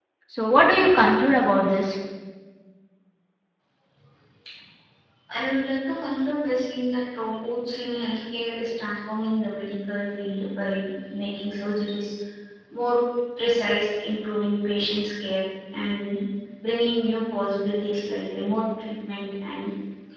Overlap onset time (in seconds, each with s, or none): none